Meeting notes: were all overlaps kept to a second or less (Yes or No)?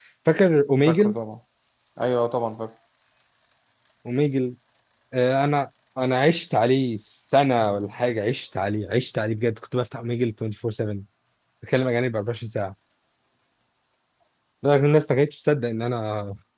Yes